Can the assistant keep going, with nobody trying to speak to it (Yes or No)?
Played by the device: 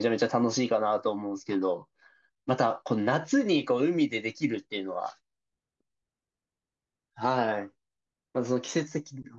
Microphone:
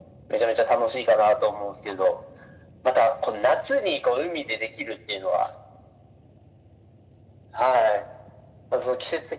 Yes